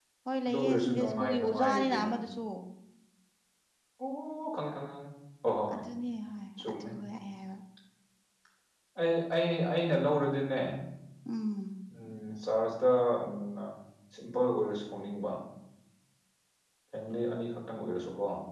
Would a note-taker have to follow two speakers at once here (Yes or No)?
Yes